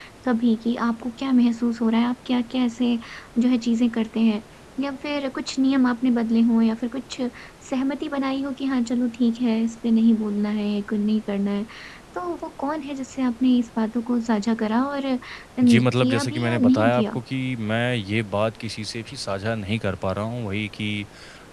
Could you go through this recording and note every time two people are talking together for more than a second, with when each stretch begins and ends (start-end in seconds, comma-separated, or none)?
15.6-17.2